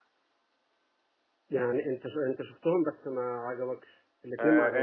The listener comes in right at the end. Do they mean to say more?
Yes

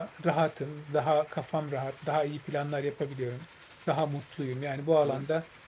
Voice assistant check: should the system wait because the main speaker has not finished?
Yes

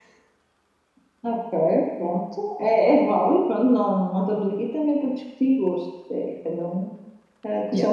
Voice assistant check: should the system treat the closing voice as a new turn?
No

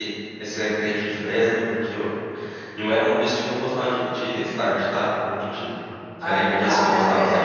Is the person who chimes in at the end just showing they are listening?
No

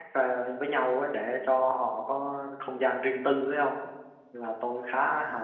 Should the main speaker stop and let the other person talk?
No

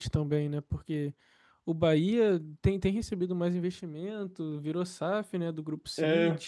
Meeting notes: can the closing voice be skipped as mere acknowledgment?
No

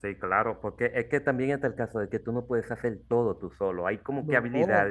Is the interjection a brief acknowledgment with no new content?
Yes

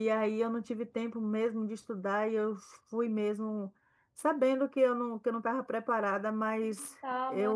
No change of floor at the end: Yes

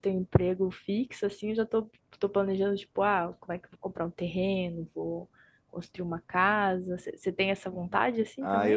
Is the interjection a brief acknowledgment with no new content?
No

